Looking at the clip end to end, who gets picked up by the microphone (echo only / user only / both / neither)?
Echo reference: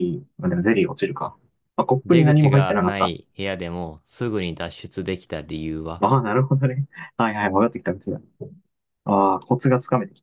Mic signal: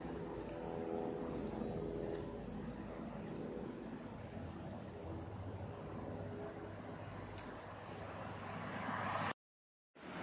neither